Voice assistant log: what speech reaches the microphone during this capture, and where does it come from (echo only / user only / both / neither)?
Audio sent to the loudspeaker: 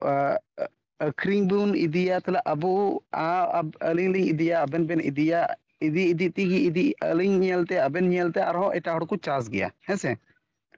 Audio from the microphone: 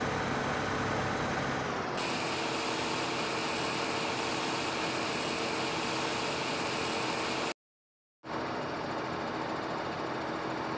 neither